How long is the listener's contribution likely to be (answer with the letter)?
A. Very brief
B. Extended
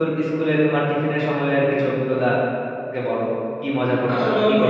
B